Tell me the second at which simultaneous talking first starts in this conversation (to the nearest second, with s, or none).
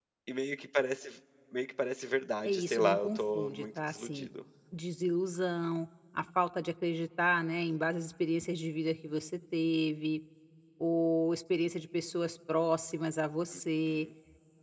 2 s